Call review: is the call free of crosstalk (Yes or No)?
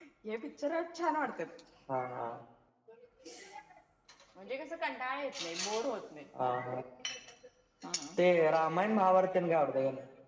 Yes